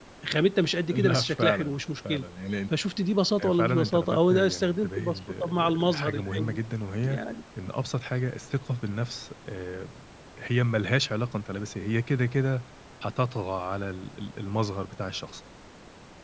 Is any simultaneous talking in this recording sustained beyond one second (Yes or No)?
Yes